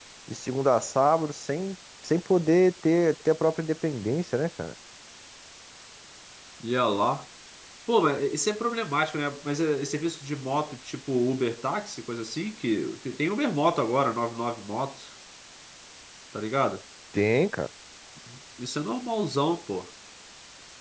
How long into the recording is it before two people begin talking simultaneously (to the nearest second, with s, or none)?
none